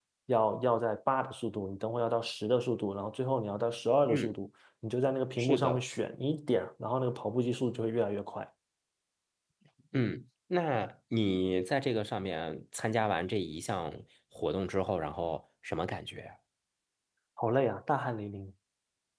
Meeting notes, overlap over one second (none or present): none